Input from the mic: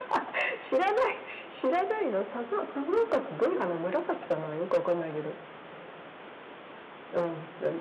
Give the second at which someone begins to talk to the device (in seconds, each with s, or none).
none